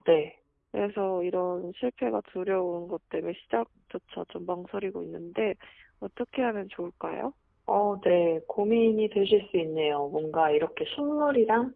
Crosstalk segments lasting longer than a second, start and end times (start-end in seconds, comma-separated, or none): none